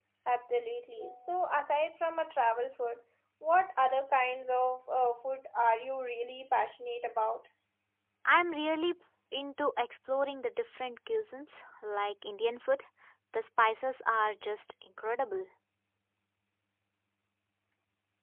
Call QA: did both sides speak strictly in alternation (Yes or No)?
Yes